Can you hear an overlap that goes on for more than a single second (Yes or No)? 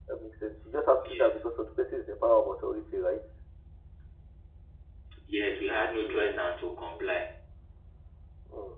No